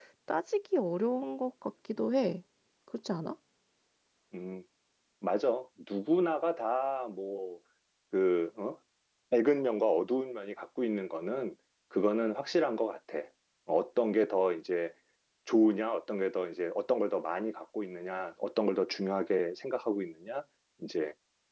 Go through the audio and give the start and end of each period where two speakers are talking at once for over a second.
none

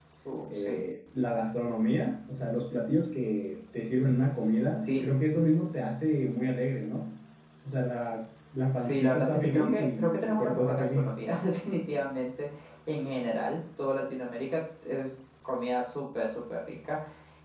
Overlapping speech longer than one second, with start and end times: 8.8-11.2

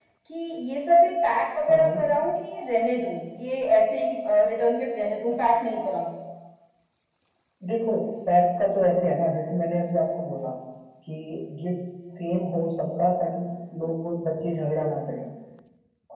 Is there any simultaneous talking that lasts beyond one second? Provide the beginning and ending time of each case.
none

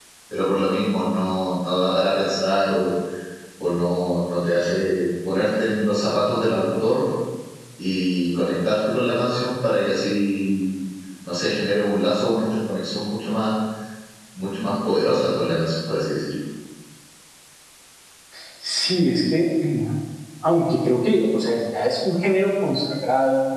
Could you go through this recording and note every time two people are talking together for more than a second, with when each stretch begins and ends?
none

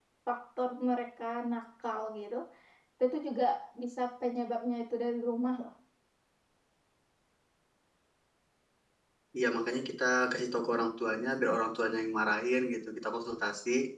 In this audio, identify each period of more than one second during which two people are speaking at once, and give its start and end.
none

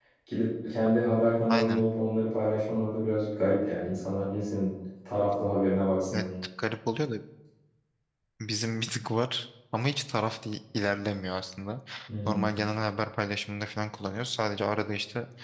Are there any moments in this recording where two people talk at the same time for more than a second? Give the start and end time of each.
none

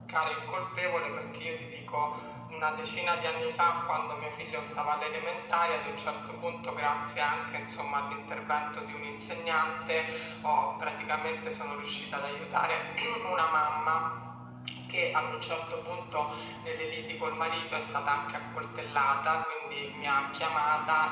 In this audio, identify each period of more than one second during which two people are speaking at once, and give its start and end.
none

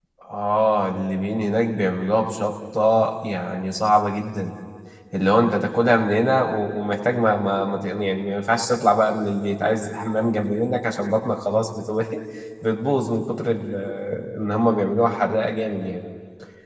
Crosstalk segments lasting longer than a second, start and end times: none

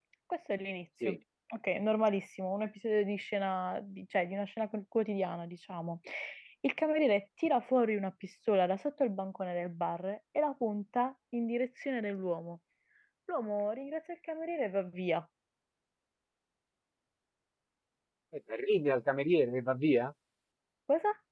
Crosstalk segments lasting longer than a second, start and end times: none

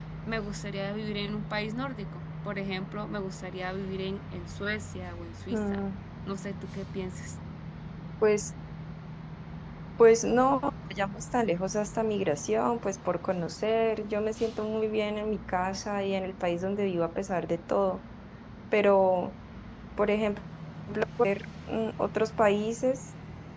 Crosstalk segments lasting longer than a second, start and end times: none

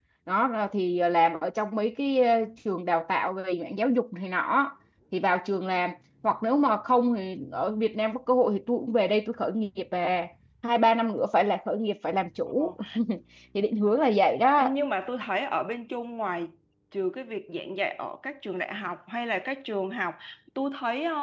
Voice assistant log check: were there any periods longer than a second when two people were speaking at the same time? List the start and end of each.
none

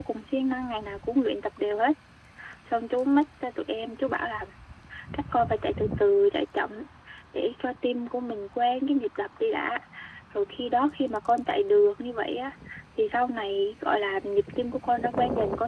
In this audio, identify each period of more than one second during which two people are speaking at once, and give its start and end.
none

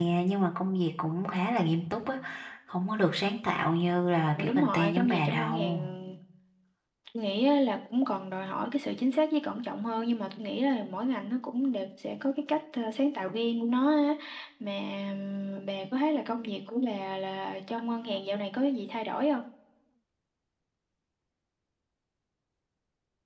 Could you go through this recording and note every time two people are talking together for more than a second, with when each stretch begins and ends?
4.3-5.9

